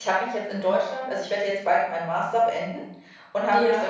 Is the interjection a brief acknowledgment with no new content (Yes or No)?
Yes